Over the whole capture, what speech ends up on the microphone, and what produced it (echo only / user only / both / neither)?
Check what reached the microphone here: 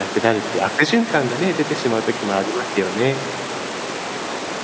user only